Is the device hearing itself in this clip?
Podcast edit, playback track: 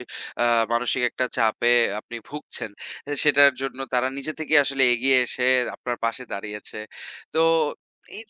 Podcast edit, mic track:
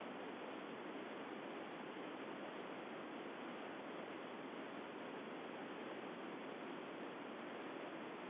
No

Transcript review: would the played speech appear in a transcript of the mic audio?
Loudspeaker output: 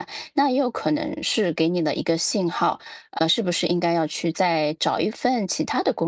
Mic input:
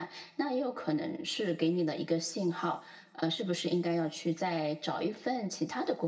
Yes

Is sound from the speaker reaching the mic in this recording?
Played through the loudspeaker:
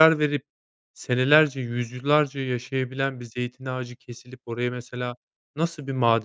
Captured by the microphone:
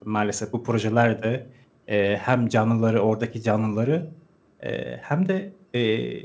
No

